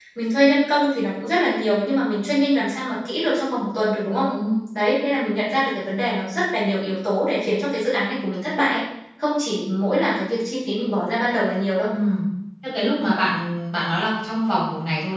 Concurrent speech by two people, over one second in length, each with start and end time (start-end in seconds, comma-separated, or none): none